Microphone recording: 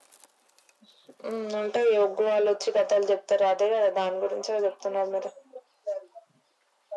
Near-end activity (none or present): none